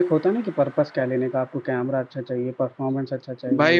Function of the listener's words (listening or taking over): taking over